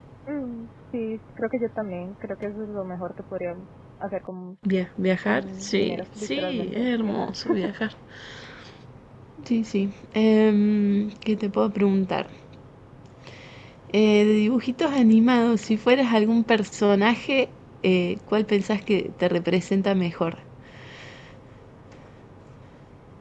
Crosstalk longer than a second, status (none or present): present